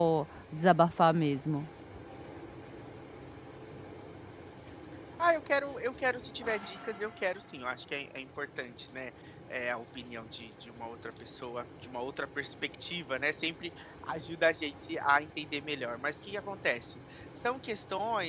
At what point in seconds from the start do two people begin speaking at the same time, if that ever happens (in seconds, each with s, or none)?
none